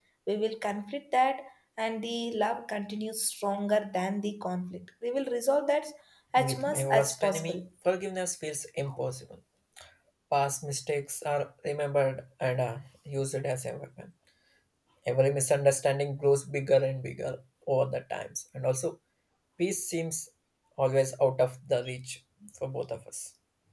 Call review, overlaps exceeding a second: present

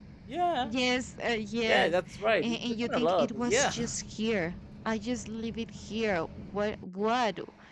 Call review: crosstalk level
present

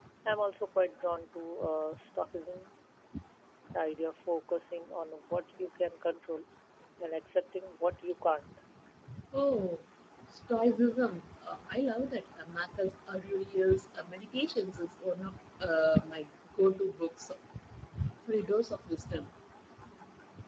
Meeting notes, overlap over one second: none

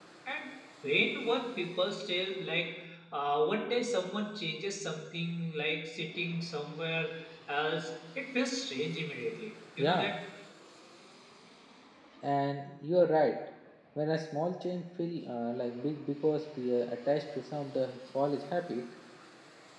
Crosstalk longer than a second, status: none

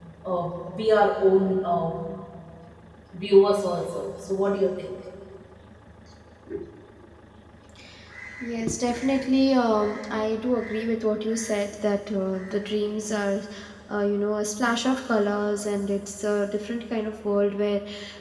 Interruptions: none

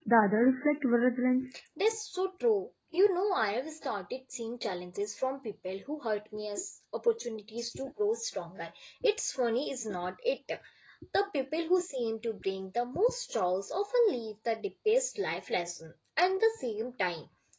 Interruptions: none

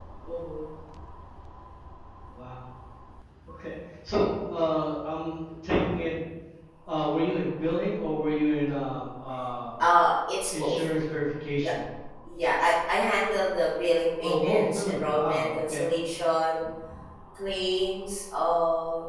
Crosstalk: present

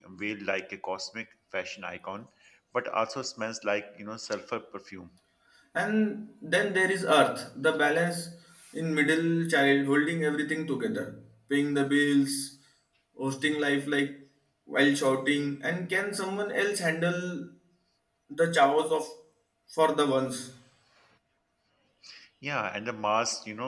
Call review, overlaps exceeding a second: none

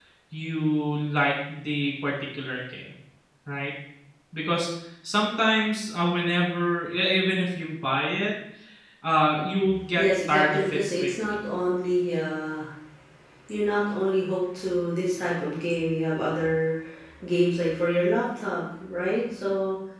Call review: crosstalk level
present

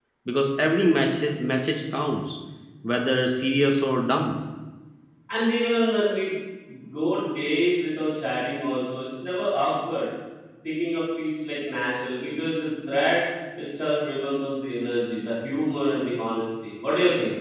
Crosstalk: none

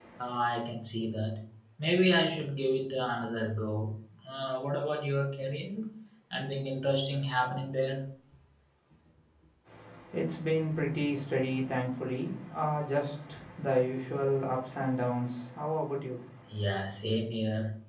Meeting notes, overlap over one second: none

